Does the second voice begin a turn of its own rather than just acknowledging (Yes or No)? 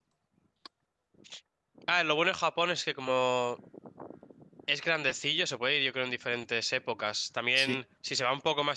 No